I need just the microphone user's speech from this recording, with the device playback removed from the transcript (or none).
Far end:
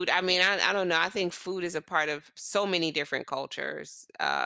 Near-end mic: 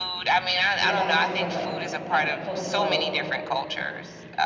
did it have some sort of, like, uh, cultural